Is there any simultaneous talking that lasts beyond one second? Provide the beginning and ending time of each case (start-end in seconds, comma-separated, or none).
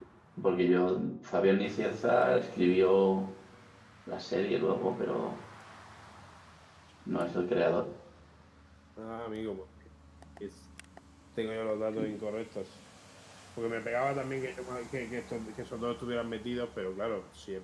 none